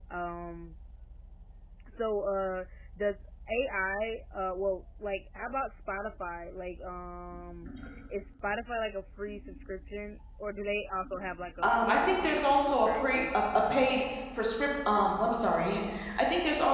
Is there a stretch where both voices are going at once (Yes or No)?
Yes